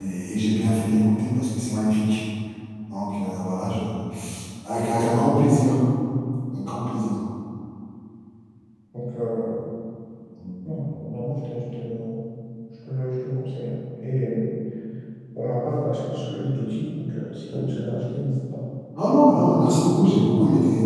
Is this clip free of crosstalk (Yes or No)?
Yes